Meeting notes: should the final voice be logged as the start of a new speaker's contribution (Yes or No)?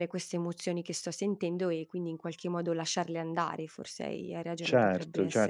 Yes